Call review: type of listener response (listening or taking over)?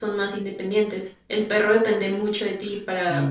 listening